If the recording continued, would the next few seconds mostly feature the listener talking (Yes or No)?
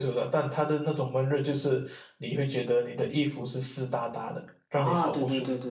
Yes